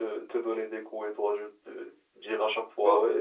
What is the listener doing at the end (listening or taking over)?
listening